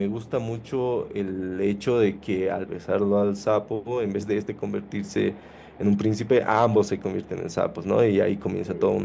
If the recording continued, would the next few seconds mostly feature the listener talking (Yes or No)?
No